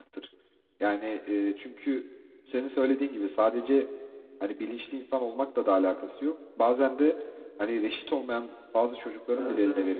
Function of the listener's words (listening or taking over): listening